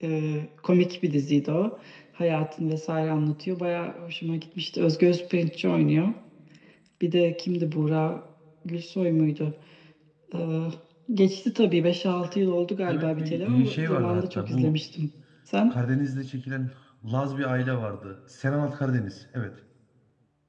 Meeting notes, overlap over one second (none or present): present